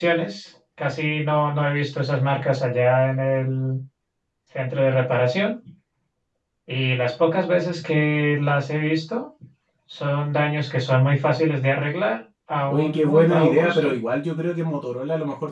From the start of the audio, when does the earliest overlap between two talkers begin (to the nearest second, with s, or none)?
13 s